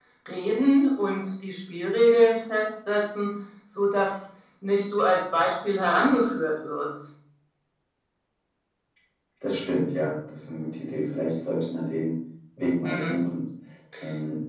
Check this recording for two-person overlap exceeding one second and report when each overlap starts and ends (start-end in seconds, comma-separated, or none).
none